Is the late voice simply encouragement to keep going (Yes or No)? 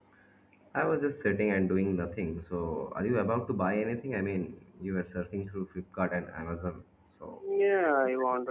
No